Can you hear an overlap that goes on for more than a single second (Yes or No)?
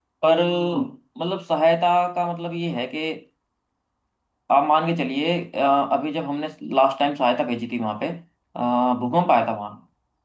No